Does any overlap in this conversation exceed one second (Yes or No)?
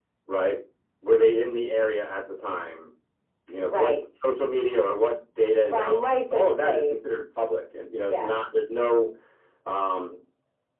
Yes